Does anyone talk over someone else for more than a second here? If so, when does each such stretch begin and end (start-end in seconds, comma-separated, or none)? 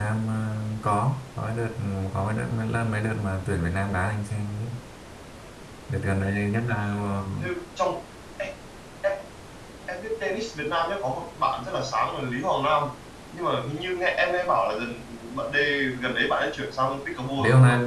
none